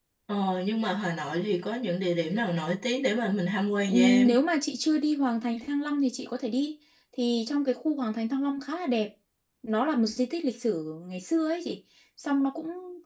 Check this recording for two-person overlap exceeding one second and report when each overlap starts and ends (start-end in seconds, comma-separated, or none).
none